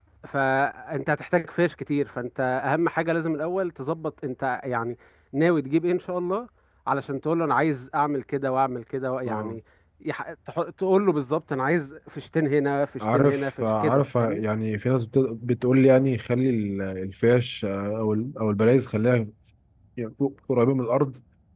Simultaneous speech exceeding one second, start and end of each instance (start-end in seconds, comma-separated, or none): 13.1-14.4